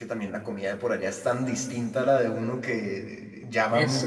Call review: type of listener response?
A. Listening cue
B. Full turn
B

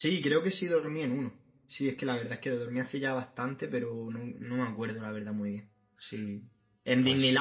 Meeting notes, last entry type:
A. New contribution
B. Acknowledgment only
B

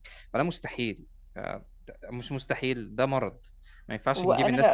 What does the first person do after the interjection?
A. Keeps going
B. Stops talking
B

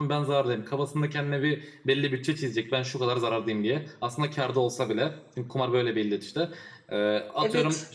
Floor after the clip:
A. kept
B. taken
A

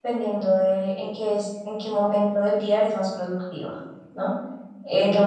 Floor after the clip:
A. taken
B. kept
B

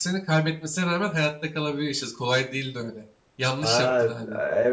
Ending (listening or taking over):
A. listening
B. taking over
B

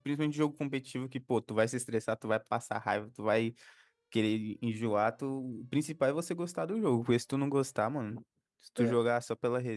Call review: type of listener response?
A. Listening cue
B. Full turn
A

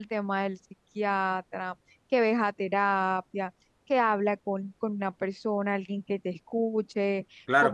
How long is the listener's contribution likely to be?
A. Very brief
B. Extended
B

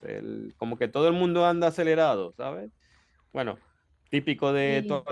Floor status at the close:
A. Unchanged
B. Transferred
A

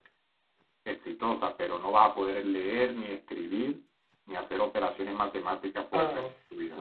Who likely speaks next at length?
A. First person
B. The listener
B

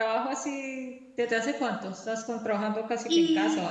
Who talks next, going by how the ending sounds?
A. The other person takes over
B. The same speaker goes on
A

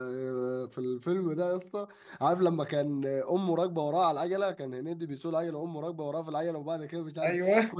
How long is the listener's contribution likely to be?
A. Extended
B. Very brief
B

